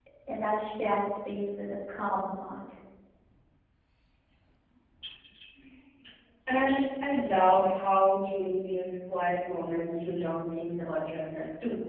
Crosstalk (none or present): none